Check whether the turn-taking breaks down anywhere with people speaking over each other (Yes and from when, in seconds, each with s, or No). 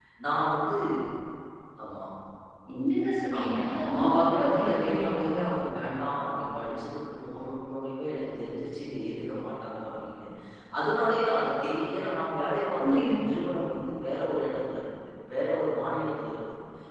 Yes, from 3.4 s